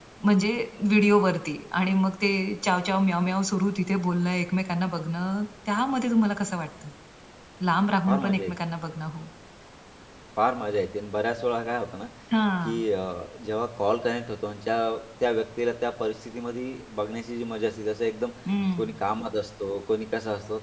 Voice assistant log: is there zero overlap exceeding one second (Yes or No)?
Yes